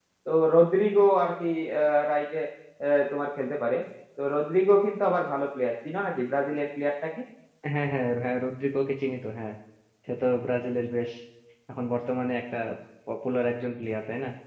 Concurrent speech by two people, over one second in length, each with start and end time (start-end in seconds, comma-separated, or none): none